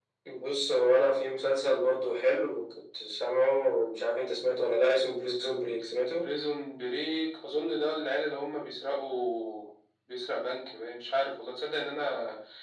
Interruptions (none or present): none